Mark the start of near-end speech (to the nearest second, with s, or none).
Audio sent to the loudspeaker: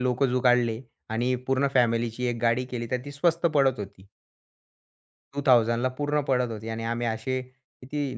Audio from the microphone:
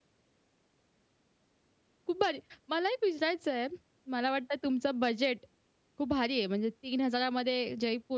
2 s